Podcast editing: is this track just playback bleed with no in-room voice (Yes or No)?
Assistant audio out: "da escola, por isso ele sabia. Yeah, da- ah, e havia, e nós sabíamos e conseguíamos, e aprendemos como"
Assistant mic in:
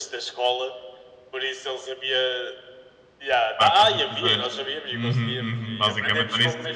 No